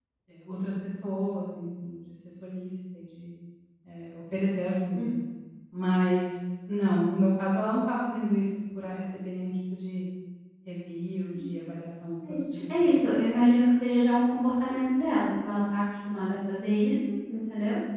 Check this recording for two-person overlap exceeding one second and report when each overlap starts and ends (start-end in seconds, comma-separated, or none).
none